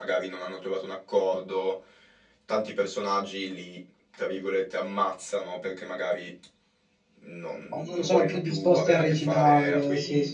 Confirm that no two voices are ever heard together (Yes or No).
No